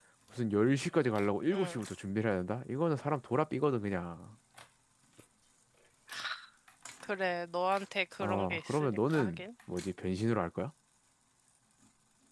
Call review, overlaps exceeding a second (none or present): present